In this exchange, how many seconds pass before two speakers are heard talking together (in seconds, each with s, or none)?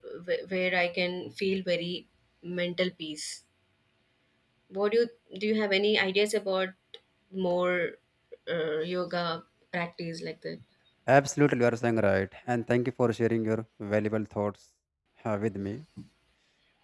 none